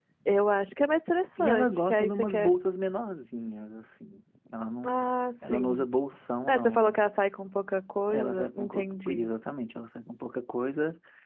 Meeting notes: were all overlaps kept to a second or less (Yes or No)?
No